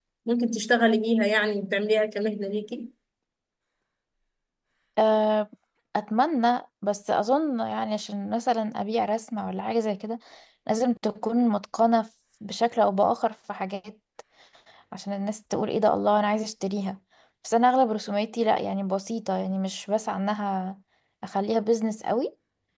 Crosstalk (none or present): none